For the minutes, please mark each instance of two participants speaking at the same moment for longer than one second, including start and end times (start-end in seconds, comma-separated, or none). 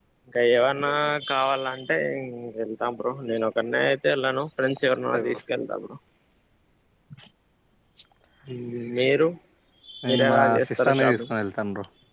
10.1-11.3